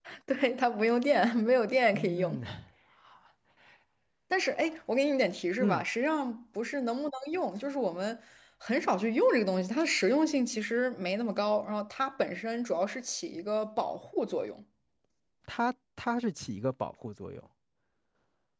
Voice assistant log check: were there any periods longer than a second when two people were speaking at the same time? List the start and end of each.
none

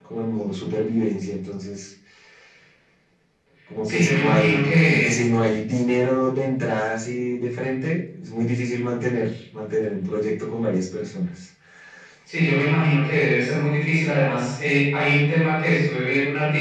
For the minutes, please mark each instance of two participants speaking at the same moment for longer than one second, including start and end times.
3.8-5.2

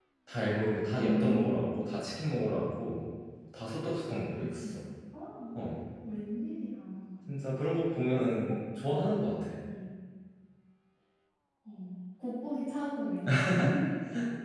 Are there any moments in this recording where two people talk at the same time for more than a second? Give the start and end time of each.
none

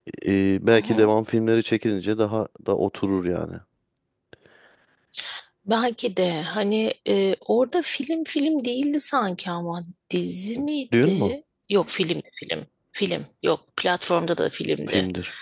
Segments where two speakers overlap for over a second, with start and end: none

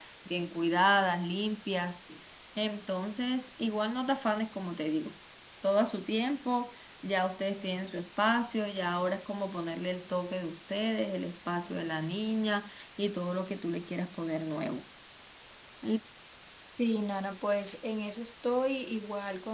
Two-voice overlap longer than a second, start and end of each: none

